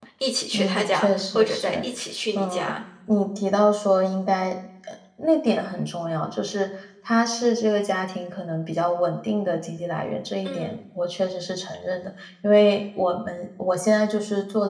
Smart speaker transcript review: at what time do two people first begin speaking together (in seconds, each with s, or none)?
0.5 s